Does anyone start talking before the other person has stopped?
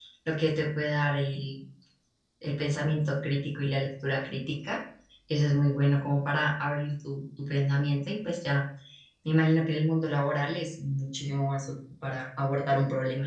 No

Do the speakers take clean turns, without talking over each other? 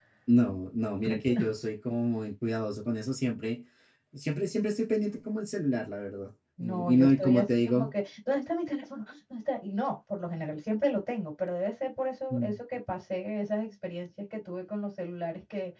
No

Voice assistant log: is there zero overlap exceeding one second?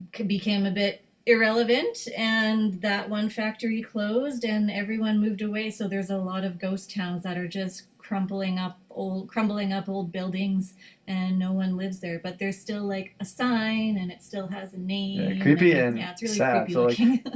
No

